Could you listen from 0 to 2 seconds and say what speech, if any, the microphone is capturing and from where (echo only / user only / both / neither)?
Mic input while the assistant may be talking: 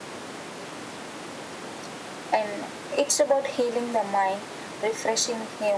neither